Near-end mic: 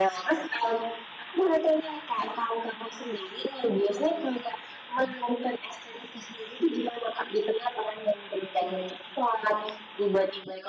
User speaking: No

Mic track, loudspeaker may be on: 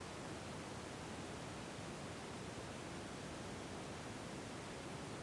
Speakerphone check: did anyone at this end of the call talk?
No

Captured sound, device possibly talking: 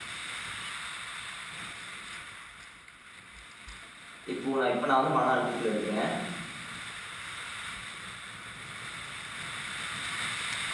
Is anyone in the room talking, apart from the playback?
Yes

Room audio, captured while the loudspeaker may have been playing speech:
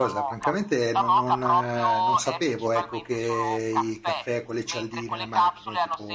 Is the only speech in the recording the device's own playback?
No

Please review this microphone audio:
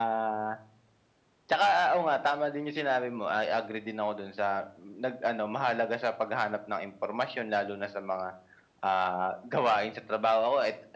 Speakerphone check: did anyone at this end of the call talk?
No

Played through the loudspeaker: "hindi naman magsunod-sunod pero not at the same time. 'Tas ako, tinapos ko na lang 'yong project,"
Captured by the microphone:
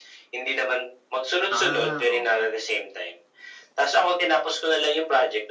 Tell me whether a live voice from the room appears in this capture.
Yes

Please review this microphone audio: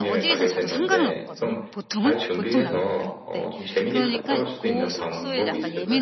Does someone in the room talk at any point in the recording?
Yes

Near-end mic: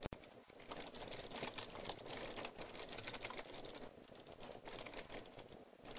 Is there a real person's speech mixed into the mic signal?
No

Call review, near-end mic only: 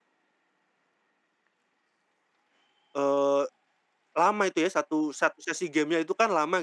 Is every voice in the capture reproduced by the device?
No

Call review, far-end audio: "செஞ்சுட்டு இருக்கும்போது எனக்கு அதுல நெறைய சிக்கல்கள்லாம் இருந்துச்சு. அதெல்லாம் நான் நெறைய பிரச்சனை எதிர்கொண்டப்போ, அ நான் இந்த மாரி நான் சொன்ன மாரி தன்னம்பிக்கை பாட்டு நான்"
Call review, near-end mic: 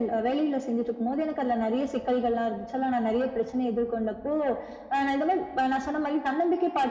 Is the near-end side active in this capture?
No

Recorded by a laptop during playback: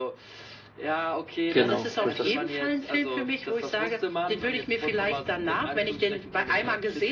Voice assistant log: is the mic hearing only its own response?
No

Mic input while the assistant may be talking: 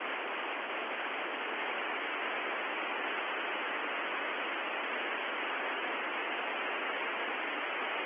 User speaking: No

